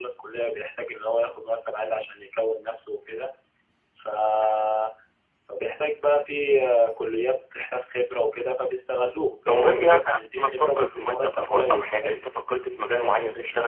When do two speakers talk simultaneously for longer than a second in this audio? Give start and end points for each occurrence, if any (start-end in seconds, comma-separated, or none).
9.5-12.2